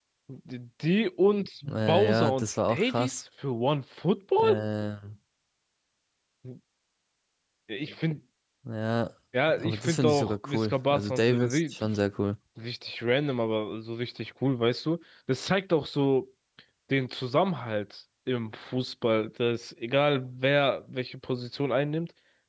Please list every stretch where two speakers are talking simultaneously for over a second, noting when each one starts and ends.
1.7-3.2, 9.6-11.8

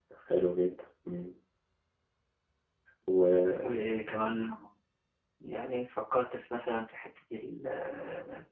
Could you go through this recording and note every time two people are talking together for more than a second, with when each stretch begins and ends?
none

